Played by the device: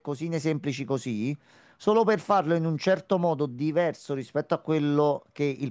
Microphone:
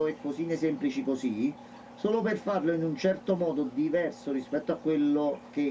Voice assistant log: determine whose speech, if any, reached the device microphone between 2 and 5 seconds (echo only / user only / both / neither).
echo only